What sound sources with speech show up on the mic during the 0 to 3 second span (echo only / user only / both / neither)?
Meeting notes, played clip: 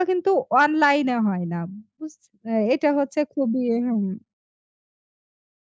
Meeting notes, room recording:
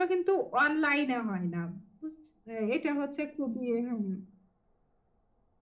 echo only